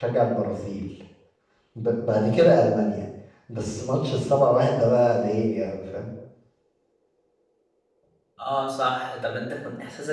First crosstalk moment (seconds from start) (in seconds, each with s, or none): none